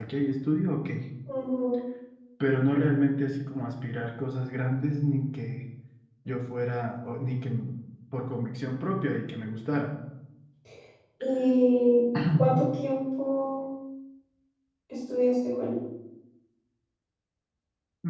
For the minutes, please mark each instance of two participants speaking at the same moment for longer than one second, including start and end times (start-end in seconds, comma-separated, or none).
none